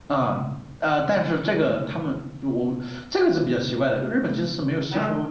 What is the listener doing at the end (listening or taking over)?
listening